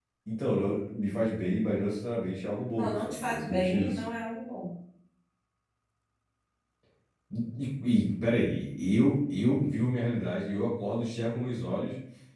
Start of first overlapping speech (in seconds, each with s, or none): 2.7 s